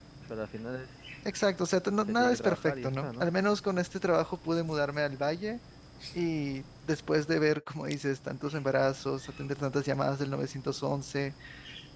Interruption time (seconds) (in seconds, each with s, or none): 2.1 s